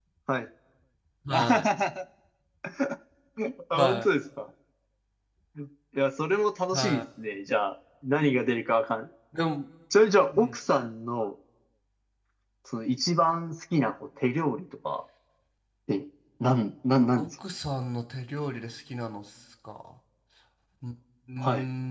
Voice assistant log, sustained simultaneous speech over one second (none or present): none